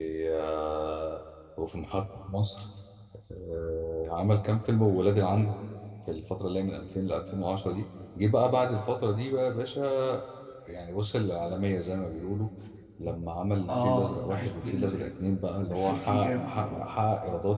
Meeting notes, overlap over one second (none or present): present